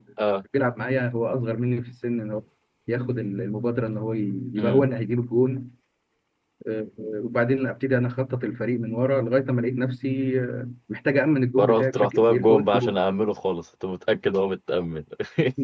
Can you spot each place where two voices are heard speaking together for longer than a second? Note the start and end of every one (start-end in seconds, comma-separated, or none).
11.6-13.0